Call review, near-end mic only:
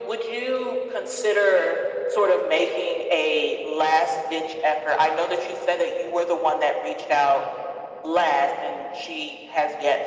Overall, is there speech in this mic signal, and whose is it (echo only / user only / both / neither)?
echo only